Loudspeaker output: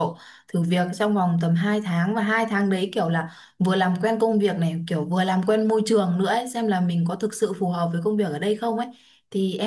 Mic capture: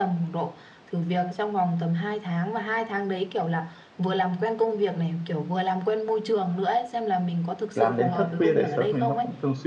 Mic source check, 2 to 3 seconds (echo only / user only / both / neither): echo only